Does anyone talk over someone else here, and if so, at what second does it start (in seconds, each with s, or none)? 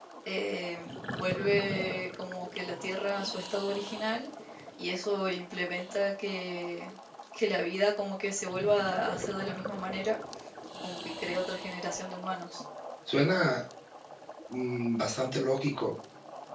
none